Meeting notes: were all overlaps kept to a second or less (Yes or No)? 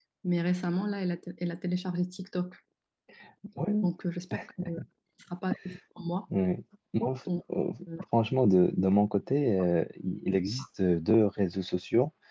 Yes